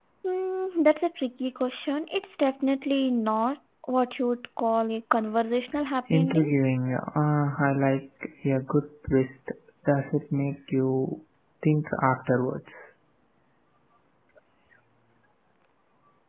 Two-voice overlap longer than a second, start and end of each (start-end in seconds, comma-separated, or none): none